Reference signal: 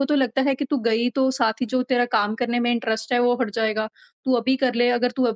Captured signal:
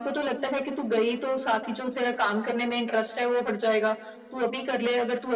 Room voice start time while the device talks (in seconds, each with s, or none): none